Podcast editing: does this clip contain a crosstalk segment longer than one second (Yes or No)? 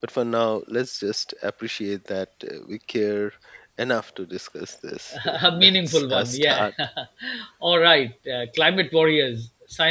Yes